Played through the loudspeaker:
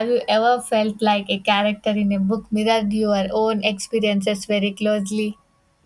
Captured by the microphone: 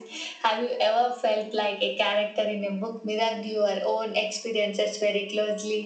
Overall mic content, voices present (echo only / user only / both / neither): echo only